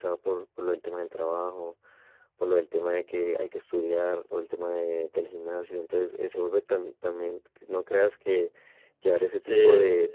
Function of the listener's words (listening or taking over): listening